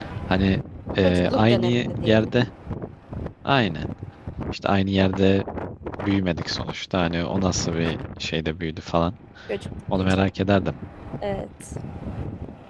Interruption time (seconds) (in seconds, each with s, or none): 1.0 s